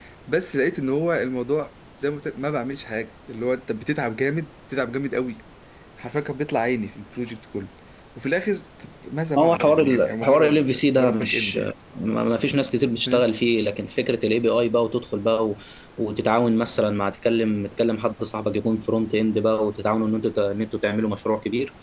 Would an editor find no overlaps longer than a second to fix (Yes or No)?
No